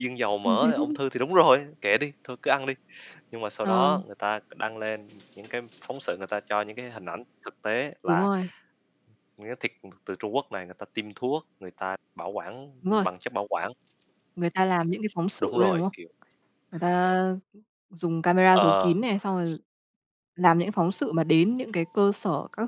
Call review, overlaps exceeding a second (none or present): none